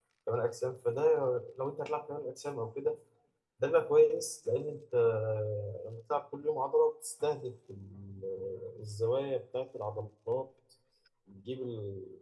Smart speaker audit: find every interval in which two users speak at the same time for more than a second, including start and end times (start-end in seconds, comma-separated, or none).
none